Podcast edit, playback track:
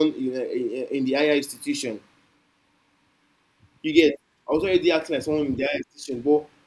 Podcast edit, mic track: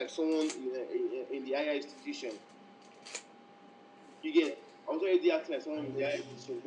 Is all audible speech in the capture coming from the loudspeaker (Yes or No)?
No